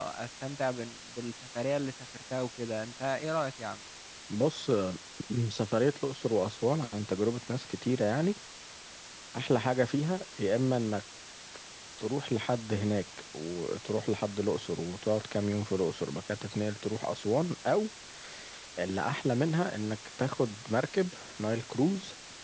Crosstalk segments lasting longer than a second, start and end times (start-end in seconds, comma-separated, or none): none